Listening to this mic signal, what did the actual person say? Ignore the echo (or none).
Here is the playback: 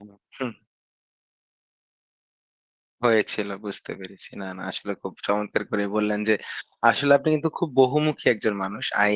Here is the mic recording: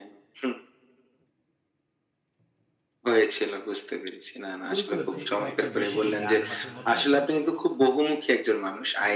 শুরু করেছি খুব একটা বেশি দিন না ৮ মাসের মতো আমি কিন্তু